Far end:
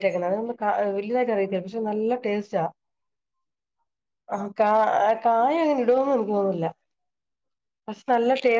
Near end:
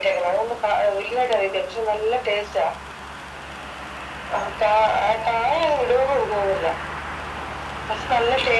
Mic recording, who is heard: echo only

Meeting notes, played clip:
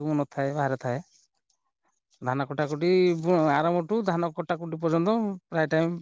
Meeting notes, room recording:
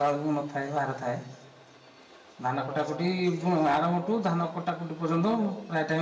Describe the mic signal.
both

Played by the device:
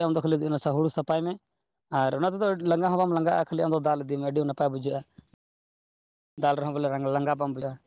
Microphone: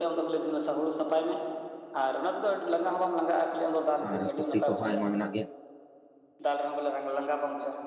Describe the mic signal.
both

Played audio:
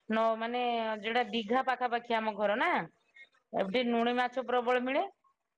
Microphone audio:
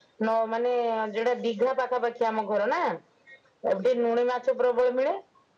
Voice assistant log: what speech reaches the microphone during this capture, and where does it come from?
echo only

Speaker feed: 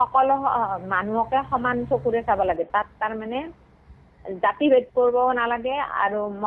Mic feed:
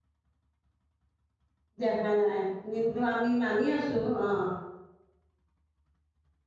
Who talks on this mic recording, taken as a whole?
user only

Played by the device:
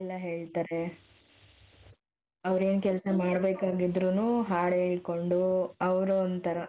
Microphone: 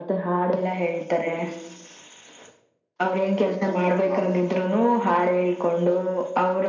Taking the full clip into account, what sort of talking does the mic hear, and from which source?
both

